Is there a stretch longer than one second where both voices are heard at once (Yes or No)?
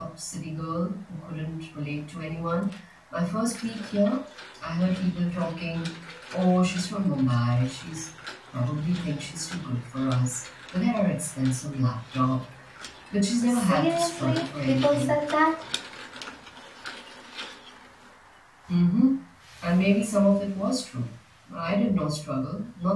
Yes